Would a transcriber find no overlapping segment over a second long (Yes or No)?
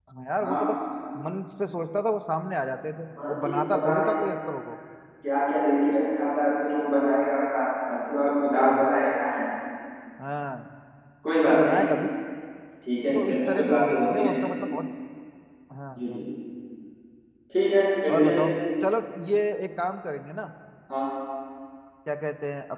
No